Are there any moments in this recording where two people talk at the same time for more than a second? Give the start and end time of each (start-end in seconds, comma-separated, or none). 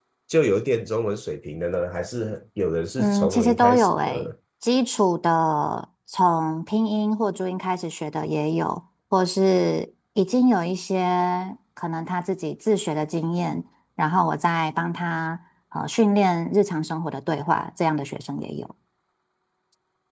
3.0-4.3